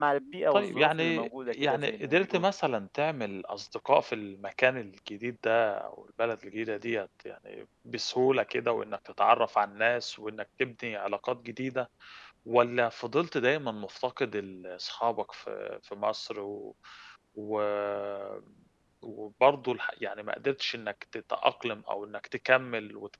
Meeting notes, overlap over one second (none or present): present